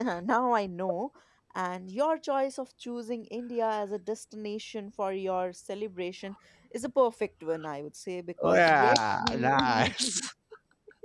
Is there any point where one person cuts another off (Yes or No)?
Yes